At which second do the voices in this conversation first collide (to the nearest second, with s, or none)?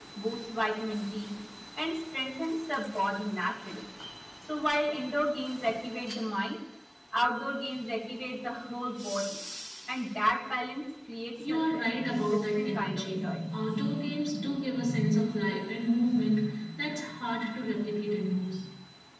11 s